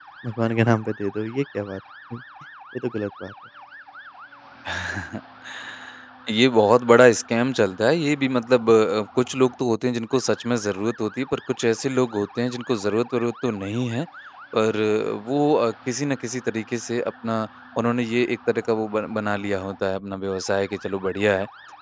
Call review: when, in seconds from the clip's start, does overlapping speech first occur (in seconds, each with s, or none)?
none